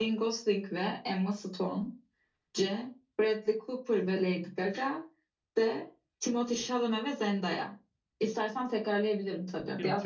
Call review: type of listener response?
taking over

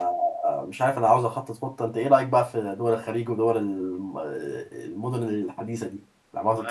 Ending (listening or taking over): taking over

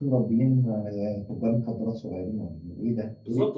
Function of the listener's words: taking over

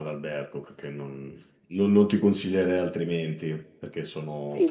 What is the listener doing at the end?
taking over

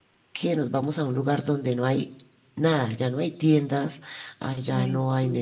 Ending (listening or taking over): listening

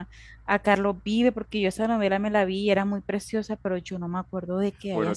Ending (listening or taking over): taking over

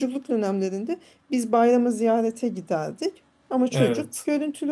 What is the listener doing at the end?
listening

